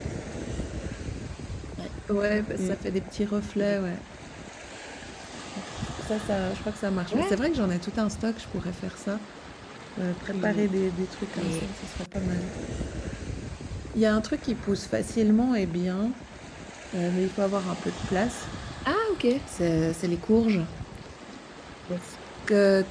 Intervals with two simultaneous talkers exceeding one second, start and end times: none

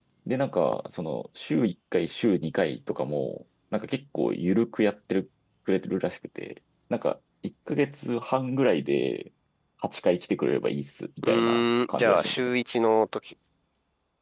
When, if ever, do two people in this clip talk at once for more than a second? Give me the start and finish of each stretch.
11.2-12.5

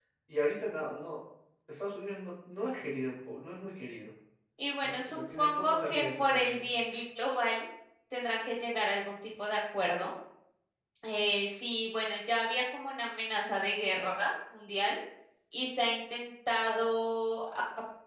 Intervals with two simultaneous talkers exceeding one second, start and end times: 4.8-6.6

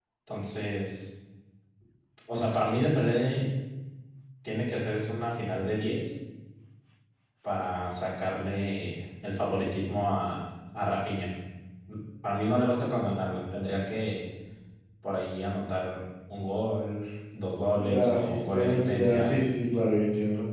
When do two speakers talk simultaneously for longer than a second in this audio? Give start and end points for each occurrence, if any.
17.8-19.3

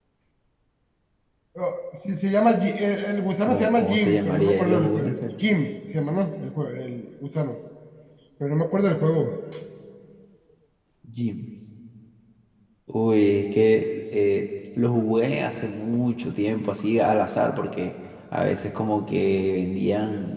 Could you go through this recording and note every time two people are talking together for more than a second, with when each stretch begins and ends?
3.4-5.1

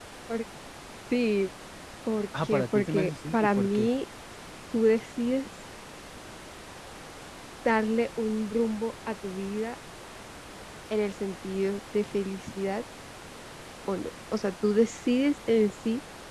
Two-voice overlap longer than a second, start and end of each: 2.4-3.9

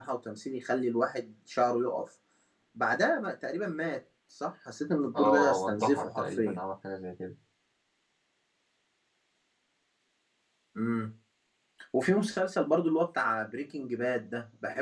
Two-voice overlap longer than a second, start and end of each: 5.1-6.6

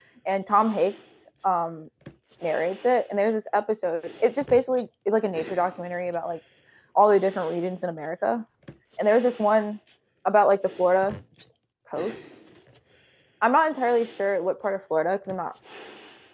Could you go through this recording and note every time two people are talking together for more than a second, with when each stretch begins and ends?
none

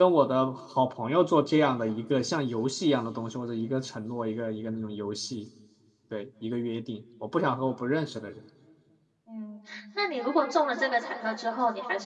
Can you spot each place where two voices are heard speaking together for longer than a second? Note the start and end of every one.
none

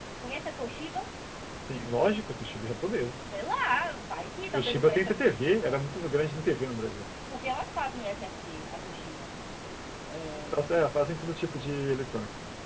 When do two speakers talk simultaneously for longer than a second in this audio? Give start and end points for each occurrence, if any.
4.5-5.8

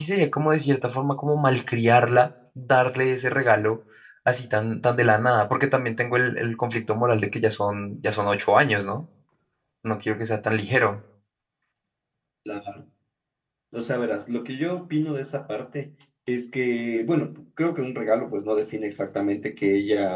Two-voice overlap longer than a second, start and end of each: none

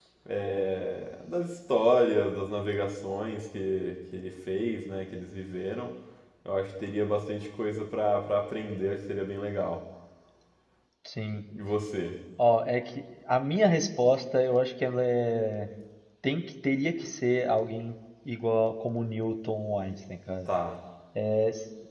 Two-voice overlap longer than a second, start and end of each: none

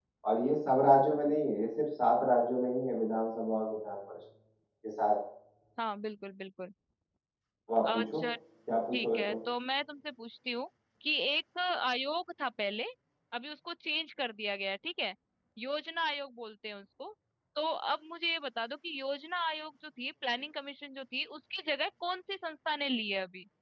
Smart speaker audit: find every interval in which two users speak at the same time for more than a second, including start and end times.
none

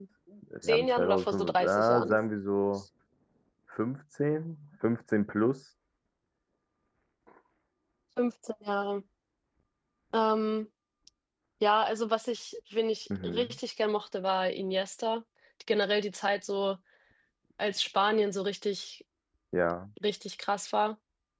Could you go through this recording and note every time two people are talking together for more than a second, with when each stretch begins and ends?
0.6-2.2

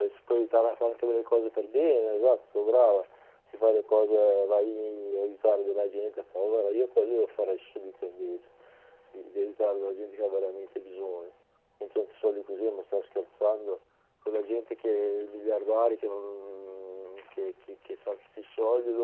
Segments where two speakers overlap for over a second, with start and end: none

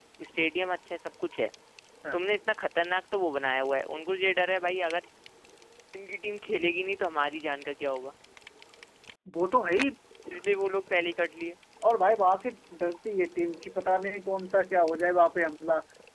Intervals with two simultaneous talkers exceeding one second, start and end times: none

